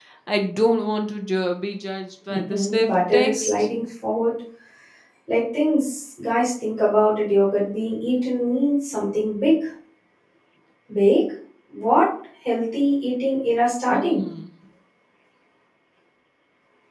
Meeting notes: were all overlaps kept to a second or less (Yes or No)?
No